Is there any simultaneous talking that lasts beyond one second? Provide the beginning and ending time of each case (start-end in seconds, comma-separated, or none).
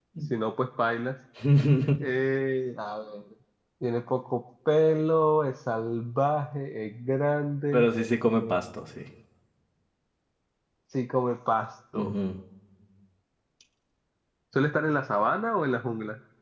none